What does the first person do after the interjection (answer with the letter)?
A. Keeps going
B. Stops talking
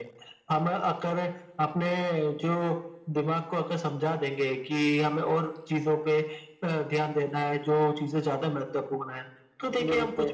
A